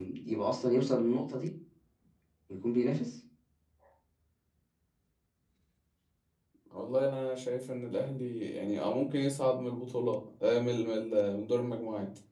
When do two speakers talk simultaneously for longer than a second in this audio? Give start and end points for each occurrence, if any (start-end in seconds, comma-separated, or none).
none